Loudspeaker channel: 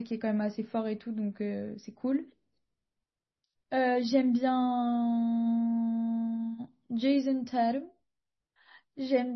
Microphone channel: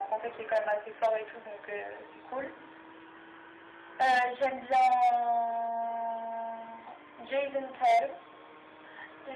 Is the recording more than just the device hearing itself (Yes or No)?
No